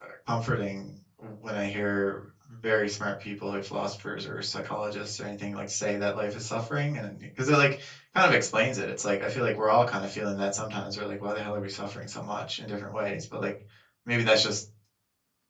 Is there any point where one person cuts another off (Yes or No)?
No